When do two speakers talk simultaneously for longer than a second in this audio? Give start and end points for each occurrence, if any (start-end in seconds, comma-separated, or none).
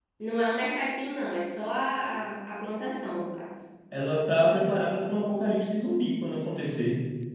none